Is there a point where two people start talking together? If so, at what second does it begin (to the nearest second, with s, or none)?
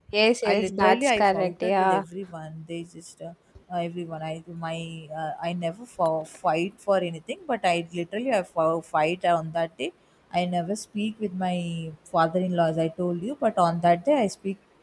1 s